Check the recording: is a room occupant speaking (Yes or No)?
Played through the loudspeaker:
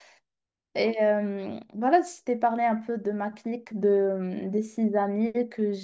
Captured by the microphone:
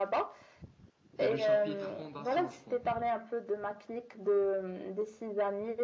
Yes